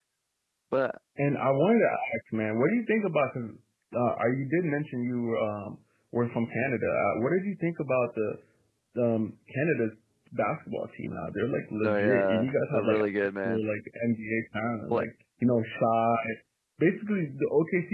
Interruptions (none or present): present